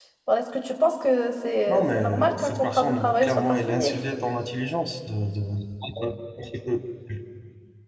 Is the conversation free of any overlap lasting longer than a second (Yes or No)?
No